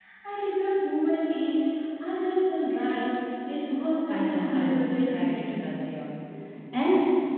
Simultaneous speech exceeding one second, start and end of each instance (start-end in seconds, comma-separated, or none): 4.1-5.5